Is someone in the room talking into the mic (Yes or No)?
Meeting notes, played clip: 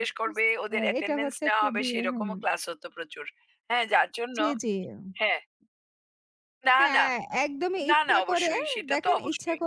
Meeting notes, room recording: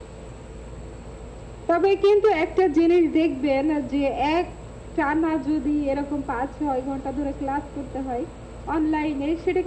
Yes